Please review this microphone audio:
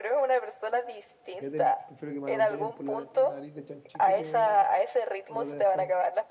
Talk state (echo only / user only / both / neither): both